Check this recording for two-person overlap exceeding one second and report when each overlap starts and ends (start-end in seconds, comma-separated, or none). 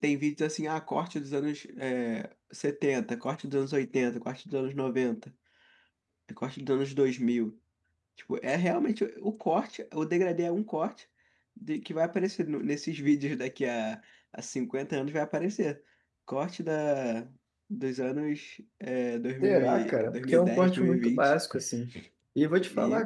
19.4-21.3